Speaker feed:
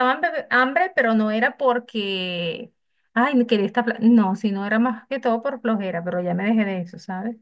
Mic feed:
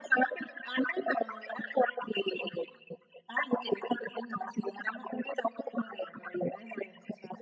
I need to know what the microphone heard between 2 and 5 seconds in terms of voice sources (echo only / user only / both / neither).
echo only